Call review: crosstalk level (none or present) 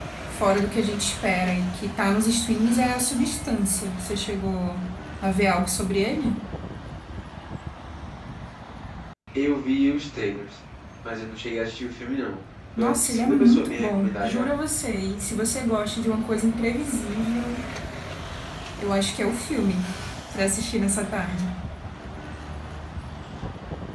present